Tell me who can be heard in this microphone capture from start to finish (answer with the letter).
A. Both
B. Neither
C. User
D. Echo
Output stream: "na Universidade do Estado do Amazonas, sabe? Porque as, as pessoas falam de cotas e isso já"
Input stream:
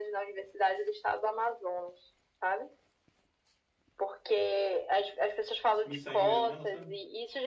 A